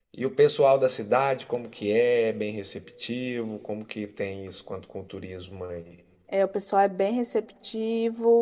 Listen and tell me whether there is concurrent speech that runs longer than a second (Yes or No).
No